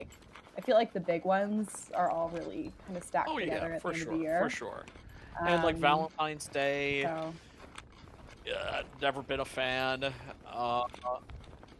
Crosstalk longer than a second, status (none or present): present